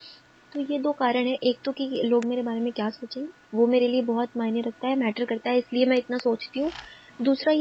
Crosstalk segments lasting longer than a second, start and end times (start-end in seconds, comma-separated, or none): none